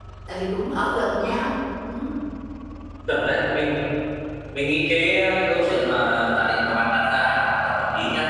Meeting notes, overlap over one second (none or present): none